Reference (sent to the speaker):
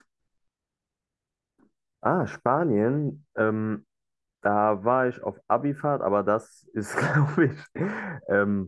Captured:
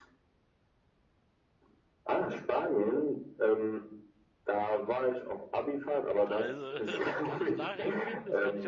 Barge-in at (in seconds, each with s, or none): 6.3 s